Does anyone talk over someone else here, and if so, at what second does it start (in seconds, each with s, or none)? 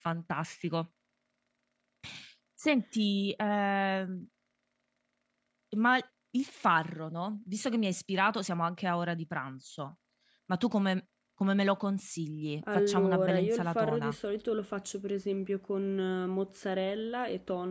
12.6 s